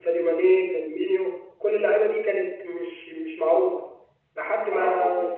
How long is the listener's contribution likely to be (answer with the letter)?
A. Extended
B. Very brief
B